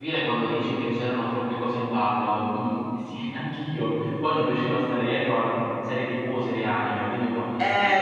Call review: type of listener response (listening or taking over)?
taking over